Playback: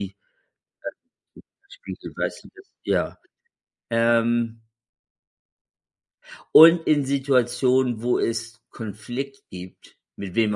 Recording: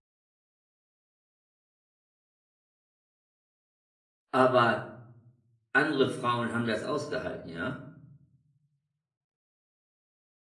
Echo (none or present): none